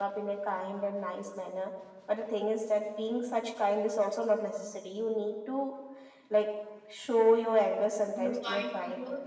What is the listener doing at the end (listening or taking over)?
taking over